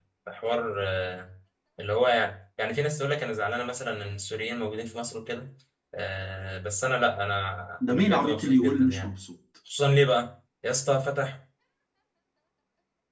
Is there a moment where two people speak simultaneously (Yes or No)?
Yes